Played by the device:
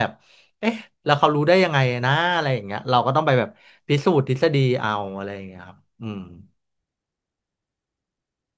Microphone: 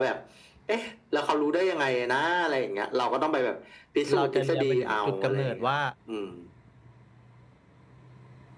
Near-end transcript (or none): เราจะเรียนไปถึงจุดกำเนิดว่า